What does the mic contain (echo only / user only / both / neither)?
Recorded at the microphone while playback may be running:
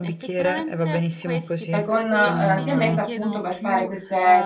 both